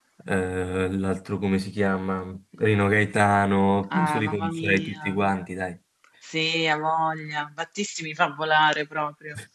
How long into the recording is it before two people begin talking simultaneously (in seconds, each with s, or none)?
3.9 s